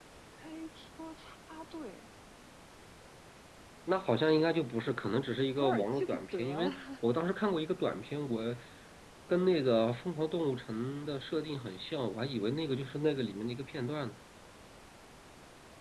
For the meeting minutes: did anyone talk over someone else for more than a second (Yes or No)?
Yes